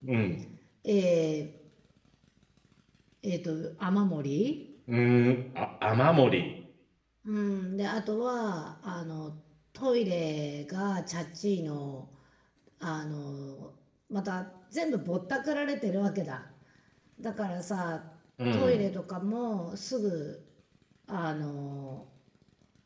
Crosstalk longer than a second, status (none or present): none